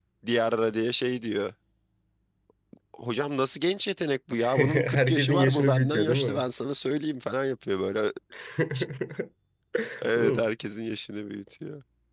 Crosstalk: present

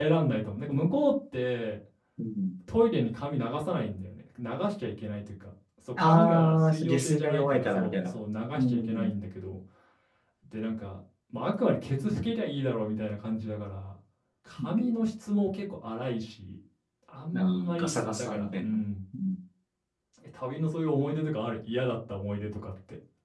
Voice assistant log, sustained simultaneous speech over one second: present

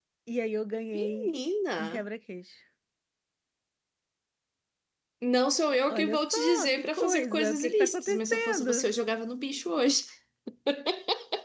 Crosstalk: present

